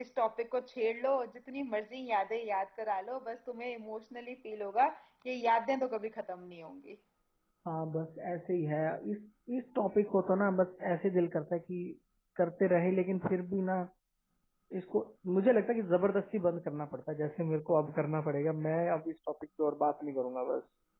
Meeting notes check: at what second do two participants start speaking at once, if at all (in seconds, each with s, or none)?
none